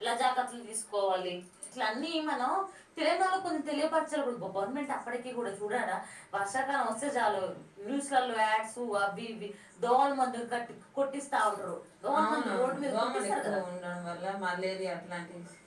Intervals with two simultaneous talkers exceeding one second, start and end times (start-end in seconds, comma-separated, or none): 12.2-13.6